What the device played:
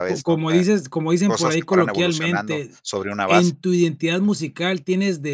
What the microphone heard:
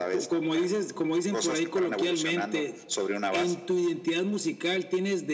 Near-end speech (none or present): none